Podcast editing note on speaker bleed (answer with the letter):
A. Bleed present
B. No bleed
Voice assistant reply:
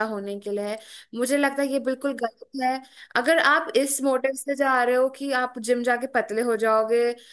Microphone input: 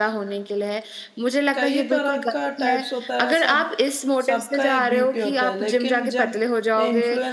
A